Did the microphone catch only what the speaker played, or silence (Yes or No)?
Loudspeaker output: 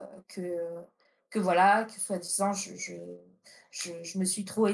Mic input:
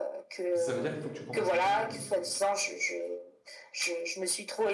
No